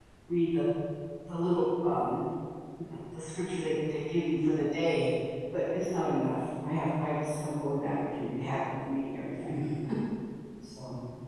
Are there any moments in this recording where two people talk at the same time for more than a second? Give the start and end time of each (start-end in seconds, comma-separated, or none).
none